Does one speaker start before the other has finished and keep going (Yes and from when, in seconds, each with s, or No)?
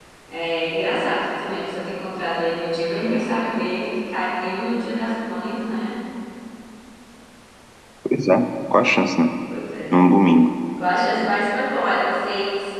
No